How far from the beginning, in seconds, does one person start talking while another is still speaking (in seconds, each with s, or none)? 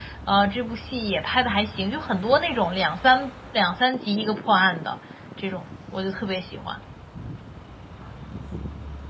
none